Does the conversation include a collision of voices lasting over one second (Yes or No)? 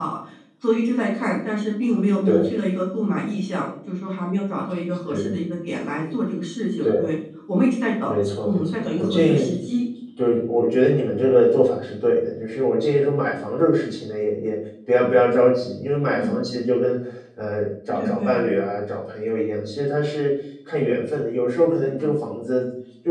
Yes